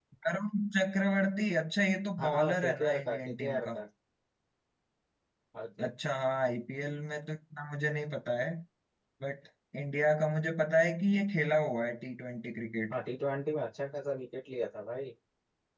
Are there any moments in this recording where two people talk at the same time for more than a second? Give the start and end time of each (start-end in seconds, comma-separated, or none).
2.2-3.8